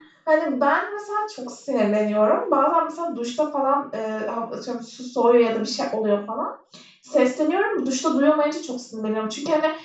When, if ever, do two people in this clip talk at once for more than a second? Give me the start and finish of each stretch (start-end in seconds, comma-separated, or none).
none